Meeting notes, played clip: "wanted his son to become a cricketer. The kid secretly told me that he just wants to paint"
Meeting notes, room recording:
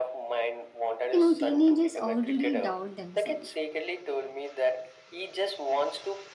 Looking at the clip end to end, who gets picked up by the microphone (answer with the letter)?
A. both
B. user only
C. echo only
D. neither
A